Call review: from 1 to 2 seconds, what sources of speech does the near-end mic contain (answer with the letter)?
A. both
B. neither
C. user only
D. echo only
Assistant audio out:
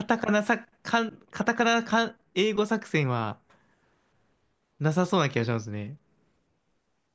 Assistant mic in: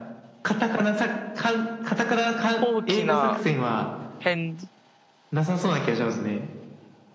D